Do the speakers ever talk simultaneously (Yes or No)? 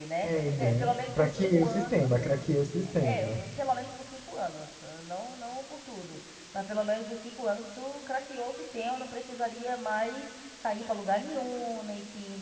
Yes